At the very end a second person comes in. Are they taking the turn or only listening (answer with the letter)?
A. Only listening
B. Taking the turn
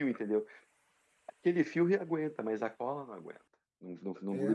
B